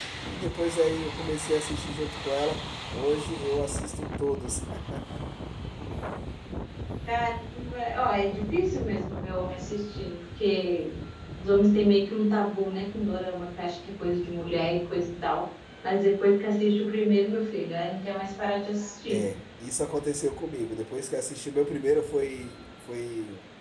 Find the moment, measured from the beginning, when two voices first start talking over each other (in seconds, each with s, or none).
none